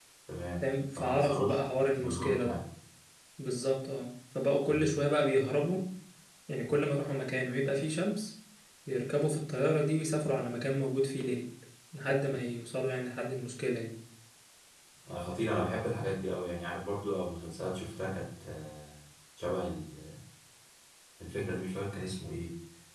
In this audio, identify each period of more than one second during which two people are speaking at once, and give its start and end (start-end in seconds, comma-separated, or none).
0.6-2.6